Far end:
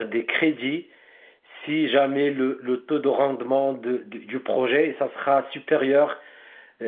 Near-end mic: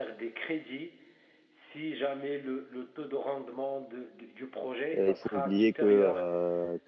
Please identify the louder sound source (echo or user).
user